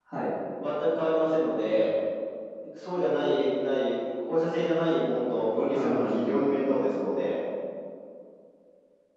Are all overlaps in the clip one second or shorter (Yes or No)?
No